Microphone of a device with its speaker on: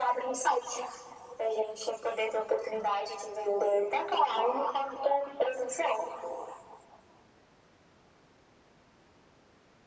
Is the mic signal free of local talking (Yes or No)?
Yes